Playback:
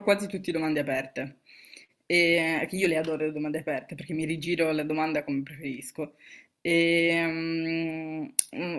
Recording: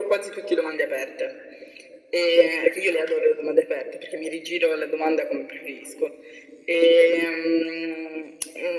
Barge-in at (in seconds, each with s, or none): none